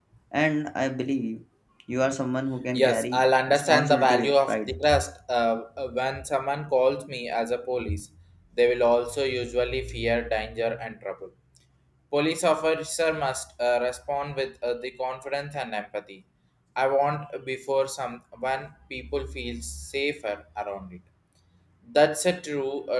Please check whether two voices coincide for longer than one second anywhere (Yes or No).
Yes